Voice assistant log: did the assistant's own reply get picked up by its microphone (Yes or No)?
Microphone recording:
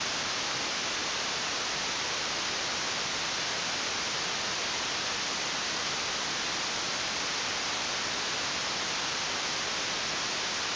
No